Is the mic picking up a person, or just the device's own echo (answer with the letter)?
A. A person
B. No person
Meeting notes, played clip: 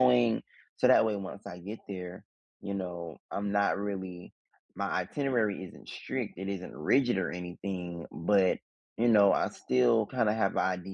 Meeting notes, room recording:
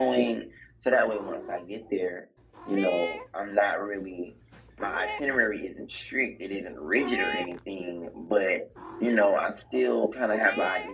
B